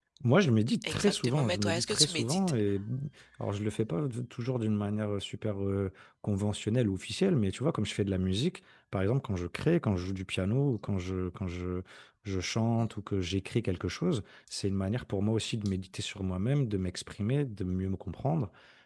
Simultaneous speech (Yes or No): Yes